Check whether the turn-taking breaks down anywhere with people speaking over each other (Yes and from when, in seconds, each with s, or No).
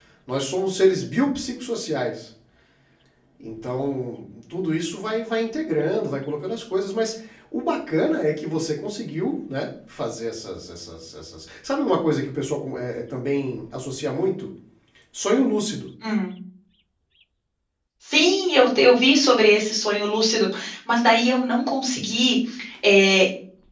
No